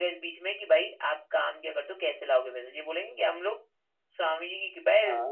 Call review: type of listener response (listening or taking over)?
listening